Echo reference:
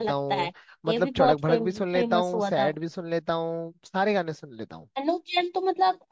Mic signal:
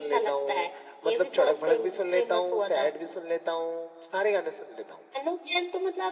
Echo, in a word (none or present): present